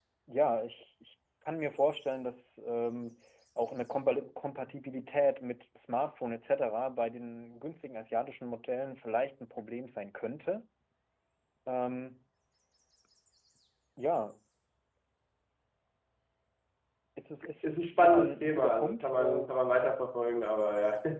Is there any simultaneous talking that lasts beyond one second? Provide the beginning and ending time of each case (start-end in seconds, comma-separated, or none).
17.6-19.5